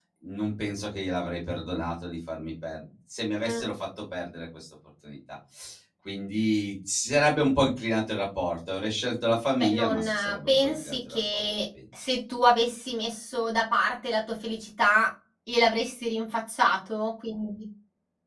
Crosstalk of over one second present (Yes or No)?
Yes